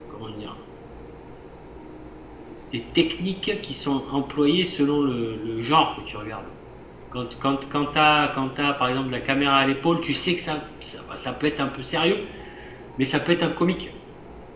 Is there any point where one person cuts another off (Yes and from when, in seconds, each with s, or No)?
No